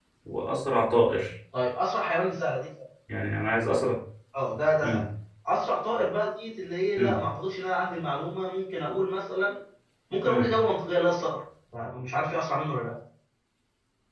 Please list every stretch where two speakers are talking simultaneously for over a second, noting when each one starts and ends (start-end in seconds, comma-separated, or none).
none